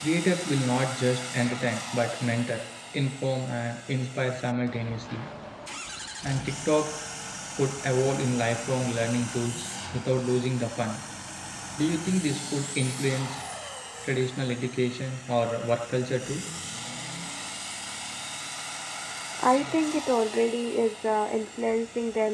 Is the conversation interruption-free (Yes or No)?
Yes